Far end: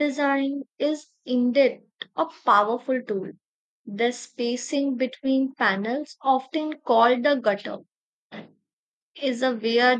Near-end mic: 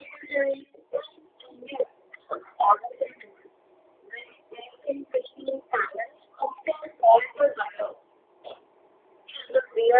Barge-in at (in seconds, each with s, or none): none